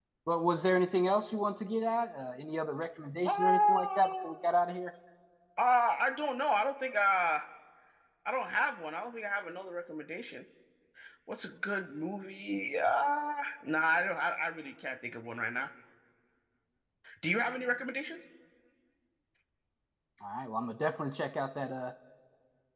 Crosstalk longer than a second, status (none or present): present